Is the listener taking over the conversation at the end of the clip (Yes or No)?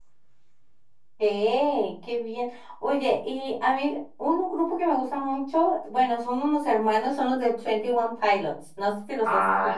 Yes